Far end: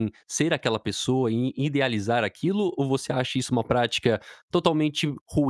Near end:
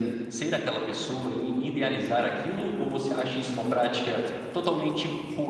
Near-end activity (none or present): none